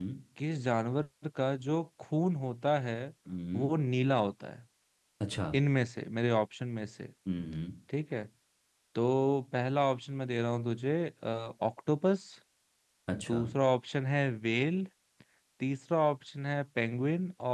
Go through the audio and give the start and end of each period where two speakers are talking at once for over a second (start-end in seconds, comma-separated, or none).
none